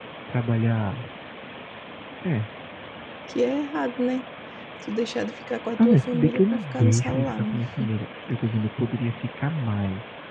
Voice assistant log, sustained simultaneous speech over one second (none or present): present